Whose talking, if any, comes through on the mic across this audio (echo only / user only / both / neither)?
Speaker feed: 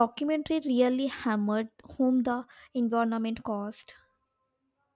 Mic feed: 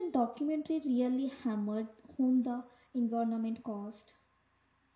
echo only